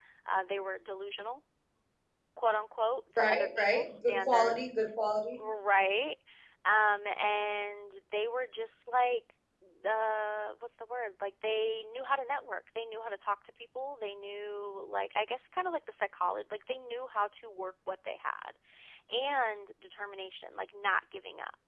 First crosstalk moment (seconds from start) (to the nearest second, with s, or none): 3 s